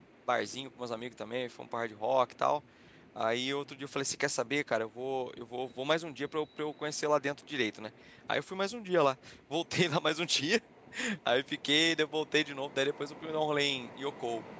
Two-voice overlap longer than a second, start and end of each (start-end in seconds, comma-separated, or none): none